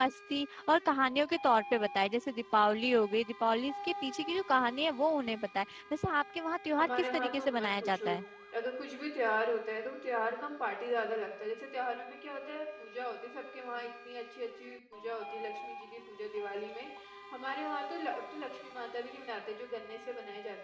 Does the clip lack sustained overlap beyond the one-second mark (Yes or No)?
No